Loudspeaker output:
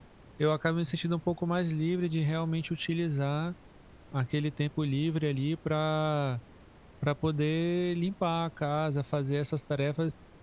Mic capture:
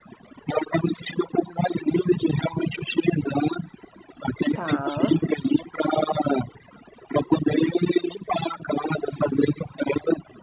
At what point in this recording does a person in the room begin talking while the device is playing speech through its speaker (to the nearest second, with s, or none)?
5 s